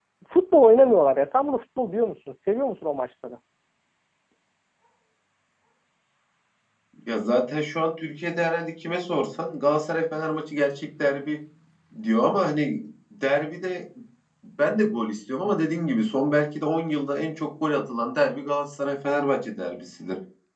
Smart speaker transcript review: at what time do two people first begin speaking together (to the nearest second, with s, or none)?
none